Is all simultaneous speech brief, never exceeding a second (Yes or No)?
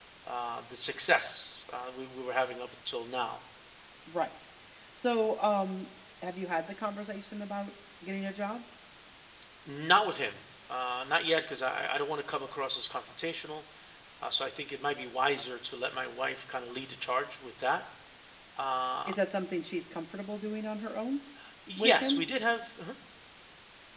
Yes